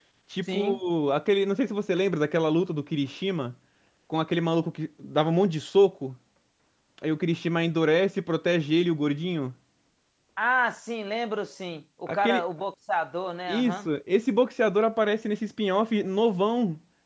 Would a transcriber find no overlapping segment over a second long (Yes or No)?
Yes